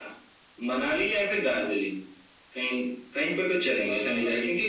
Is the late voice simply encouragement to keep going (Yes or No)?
Yes